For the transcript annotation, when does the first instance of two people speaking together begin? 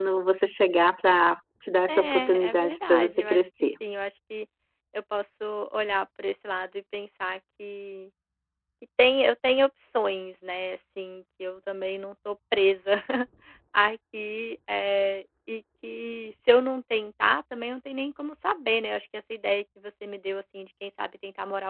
1.9 s

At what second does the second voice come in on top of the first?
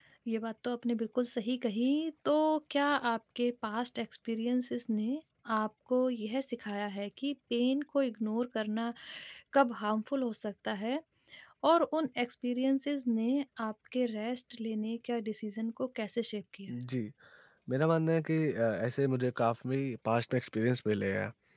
none

